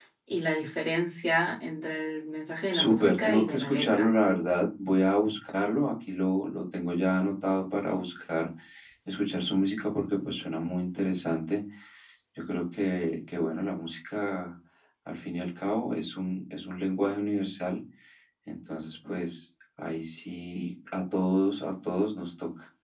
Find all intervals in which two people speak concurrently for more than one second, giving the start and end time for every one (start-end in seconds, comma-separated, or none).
2.7-4.1